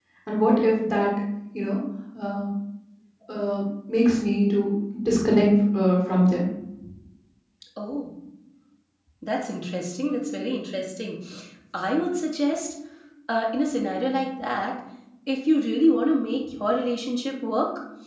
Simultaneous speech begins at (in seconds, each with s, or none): none